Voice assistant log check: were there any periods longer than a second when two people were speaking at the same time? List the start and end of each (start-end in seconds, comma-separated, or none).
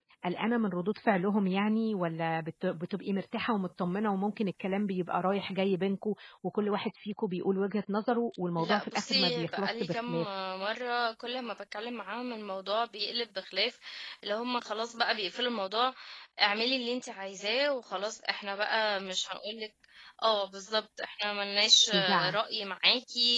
8.6-10.2